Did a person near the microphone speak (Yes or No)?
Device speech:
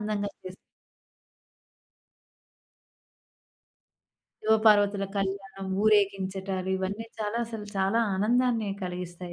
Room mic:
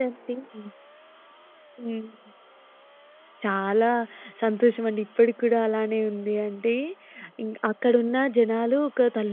Yes